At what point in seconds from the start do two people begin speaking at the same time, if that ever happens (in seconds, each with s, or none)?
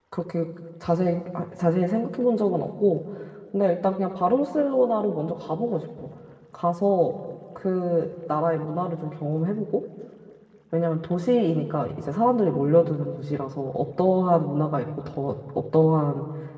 none